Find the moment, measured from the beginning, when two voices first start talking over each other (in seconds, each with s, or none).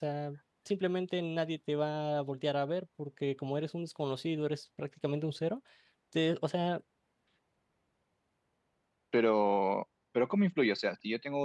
none